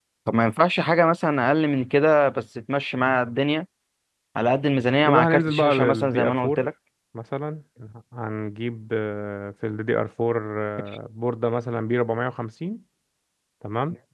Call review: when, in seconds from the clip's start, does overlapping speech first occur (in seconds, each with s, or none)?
5.0 s